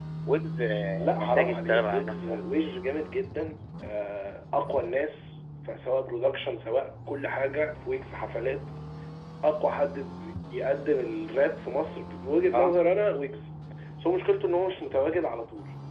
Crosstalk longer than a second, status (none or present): present